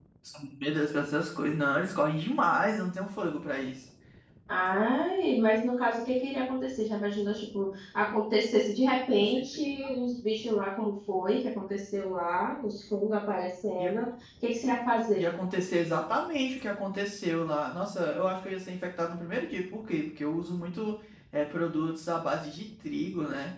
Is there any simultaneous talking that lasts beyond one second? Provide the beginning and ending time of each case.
none

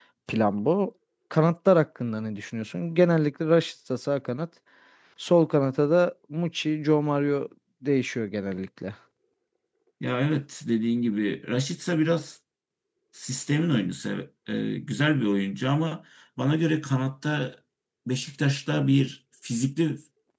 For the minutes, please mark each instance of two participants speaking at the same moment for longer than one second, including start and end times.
none

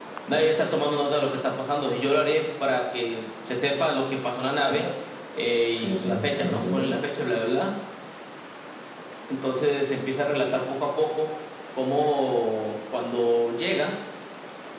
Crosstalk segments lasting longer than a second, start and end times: 5.7-7.0

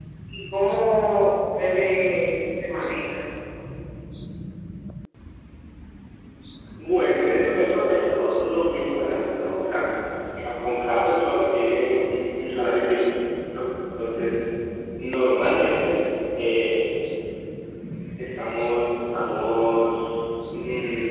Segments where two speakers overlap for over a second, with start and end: none

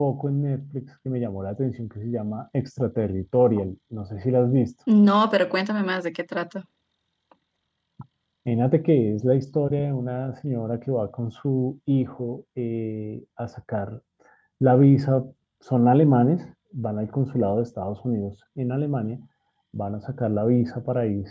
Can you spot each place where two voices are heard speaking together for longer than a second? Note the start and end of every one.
none

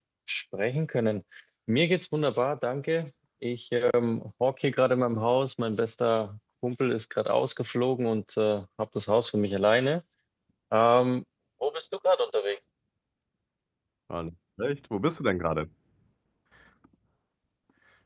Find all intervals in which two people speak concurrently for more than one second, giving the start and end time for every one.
none

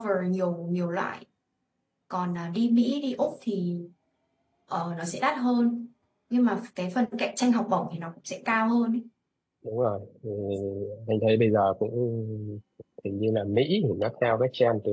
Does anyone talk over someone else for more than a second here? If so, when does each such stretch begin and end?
none

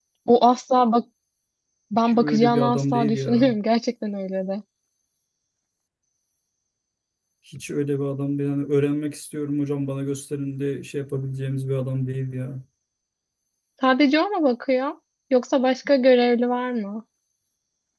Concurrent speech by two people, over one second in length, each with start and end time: 1.9-3.5

